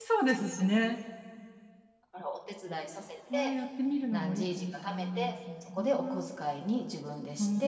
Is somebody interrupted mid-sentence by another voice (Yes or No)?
Yes